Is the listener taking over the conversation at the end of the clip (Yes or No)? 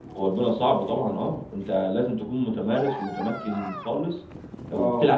No